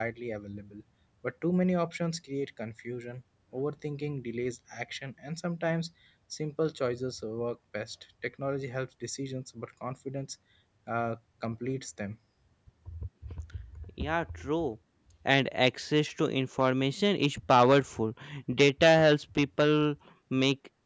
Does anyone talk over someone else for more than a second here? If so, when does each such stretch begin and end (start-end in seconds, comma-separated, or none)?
none